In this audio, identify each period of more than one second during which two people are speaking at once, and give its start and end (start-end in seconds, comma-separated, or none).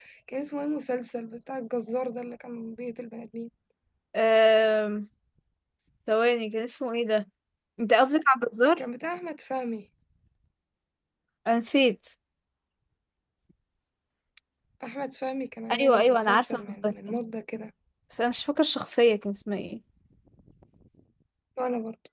15.8-17.2